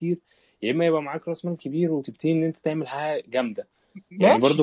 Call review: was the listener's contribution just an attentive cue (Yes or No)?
Yes